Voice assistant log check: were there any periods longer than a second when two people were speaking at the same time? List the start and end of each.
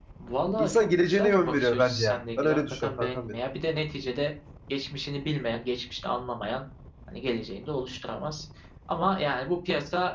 0.6-3.3

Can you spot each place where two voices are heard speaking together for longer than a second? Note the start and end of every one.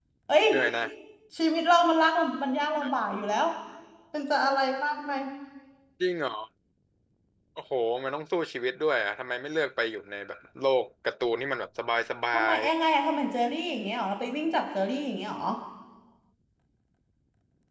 none

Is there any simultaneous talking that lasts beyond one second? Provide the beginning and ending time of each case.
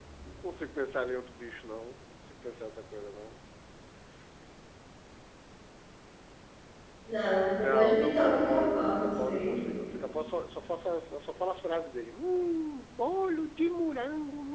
7.5-9.6

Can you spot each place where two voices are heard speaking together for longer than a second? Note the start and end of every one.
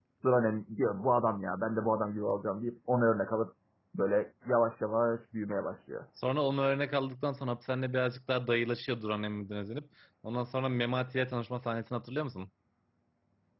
none

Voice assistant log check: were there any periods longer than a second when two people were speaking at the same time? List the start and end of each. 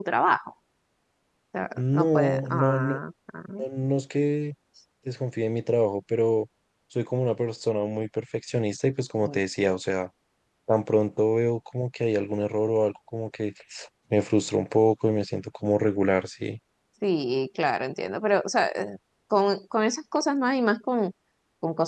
1.8-3.0

